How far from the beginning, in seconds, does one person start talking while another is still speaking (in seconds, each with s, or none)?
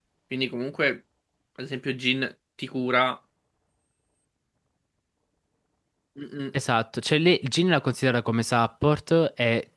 none